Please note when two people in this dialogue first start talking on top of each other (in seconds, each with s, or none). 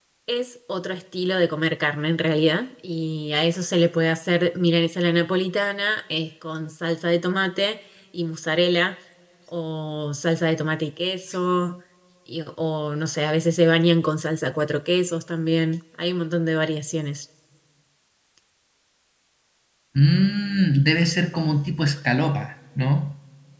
none